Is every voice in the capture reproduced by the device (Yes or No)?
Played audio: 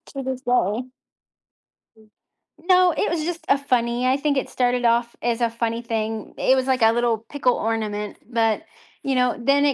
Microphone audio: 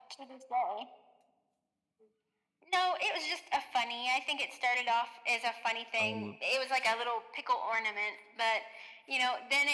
No